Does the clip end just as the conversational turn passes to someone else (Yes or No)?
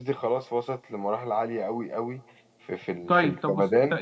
Yes